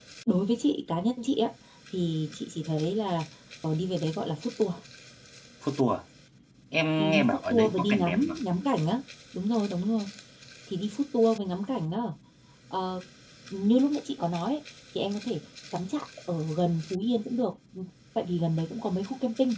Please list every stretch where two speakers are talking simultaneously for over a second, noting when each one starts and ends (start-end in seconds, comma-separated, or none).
7.0-8.4